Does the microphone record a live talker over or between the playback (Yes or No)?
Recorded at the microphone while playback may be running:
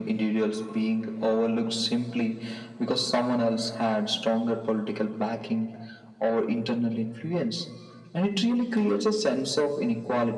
No